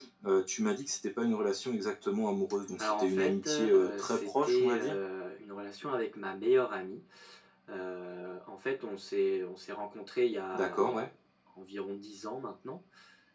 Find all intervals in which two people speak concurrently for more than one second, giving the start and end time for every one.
2.8-5.0

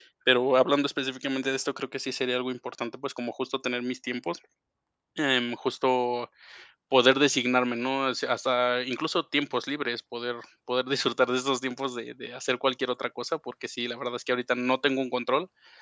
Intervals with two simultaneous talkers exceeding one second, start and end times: none

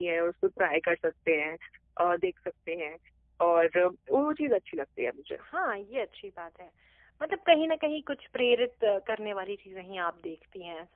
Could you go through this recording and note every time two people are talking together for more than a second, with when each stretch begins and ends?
none

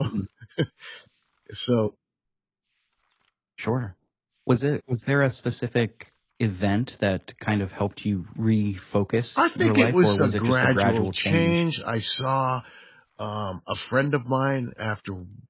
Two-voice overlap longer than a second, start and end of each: 9.4-11.6

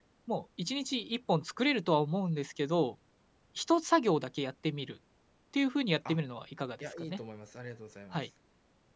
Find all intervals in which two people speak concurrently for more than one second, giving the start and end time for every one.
none

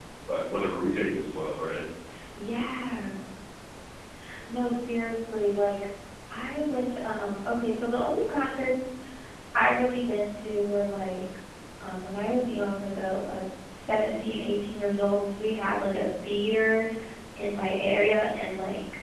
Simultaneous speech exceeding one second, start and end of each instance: none

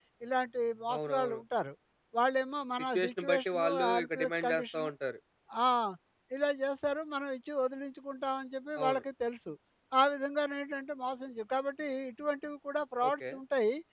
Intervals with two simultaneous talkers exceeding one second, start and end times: 2.9-4.9

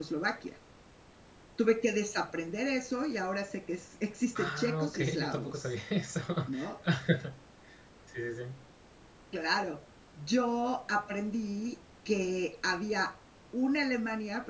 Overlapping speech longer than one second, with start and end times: 4.4-5.7

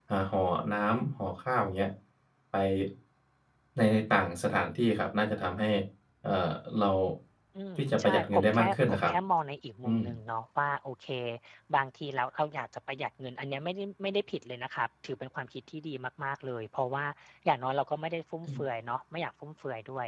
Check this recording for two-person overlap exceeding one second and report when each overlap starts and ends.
7.8-9.1

